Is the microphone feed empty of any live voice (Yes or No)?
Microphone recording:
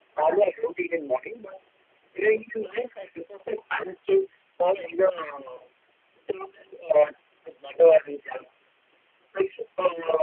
Yes